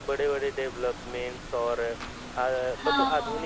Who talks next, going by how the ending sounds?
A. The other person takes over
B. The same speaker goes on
B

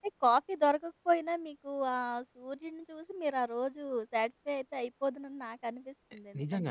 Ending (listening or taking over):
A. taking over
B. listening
A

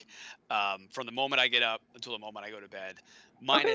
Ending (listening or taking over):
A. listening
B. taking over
A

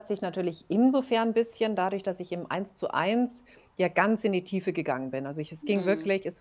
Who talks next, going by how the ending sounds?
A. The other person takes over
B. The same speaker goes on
B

